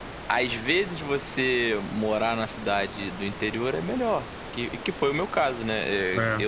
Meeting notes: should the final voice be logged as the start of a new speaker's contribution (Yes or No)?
No